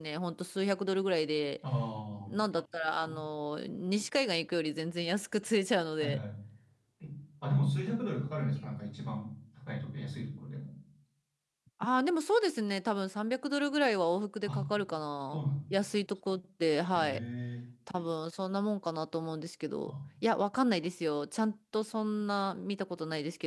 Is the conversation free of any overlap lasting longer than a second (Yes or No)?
Yes